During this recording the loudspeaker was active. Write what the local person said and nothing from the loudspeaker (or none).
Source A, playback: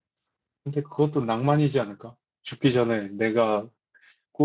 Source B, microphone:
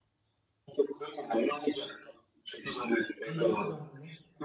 인정사정 없네.